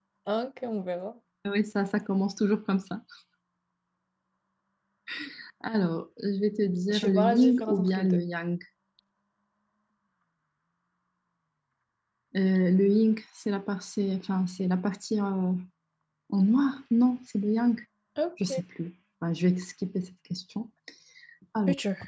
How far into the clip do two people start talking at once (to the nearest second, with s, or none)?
7 s